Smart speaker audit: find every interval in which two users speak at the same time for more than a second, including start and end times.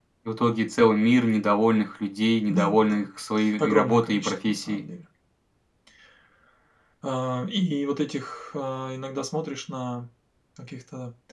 3.6-4.8

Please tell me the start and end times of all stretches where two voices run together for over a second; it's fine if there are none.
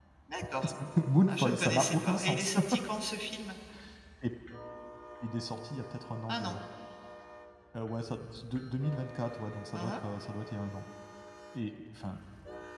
1.3-2.5

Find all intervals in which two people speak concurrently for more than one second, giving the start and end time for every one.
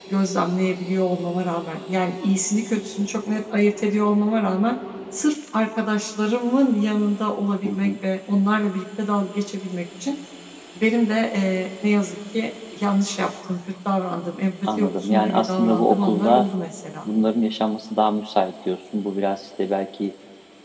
14.8-16.4

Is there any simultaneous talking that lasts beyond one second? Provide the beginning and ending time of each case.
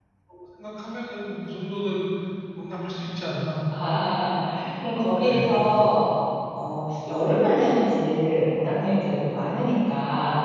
none

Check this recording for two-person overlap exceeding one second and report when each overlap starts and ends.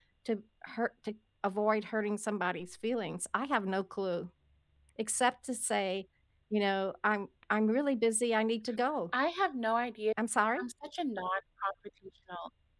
none

